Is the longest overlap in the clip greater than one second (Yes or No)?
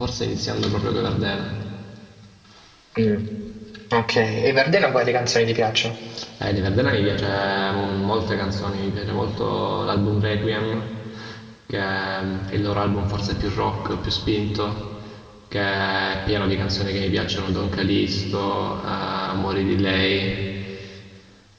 No